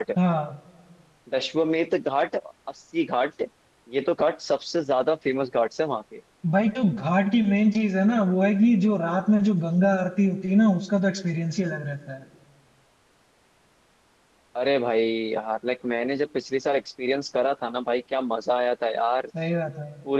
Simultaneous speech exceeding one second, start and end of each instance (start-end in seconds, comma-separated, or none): none